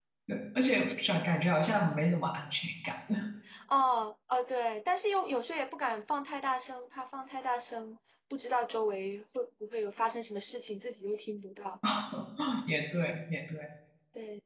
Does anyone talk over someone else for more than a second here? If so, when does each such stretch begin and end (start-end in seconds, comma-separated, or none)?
none